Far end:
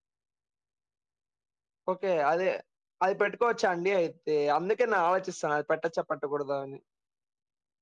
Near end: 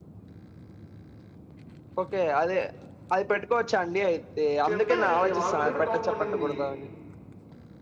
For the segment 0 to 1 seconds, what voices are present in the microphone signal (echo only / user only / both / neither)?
neither